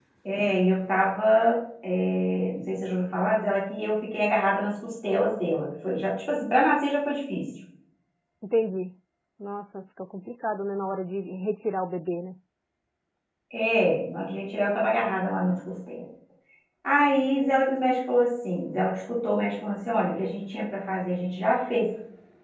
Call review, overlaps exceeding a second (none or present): none